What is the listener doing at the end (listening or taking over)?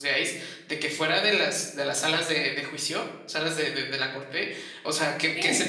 listening